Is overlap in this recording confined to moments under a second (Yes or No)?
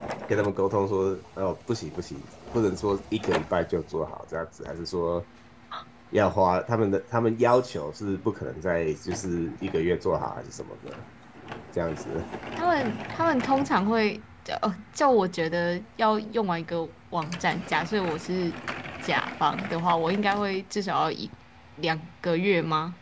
Yes